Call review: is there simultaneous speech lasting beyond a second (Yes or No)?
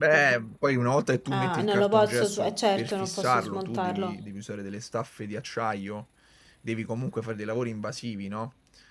Yes